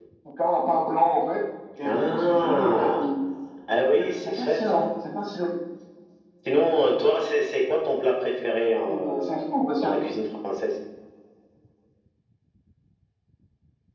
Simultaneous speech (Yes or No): Yes